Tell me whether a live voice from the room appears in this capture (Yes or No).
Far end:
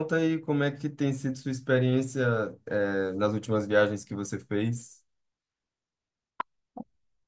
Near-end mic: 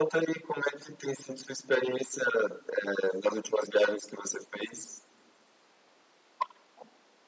No